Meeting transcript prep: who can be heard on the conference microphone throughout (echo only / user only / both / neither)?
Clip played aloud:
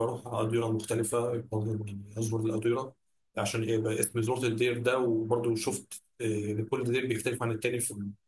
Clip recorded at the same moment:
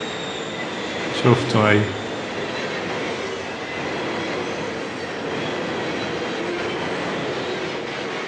user only